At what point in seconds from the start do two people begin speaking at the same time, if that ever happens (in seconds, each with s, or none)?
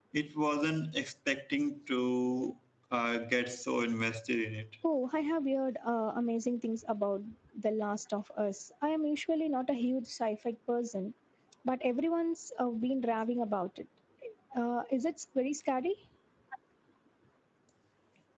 none